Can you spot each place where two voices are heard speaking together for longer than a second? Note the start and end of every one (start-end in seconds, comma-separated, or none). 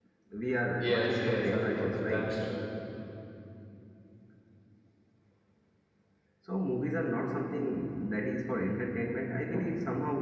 0.8-2.3